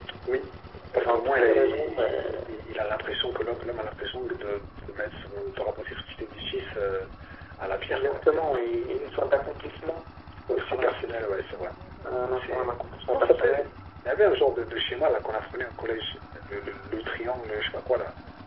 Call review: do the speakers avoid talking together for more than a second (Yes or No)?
No